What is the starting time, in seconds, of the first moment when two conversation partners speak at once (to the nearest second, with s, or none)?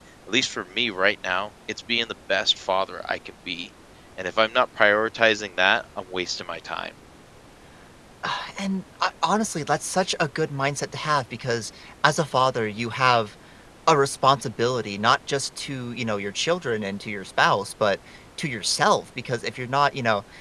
none